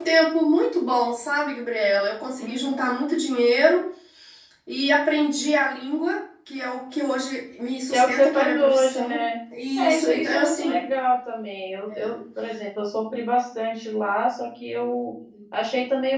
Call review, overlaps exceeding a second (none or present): present